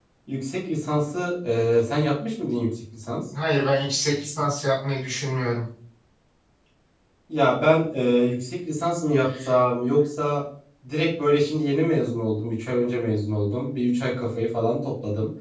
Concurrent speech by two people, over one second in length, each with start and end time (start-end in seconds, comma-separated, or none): none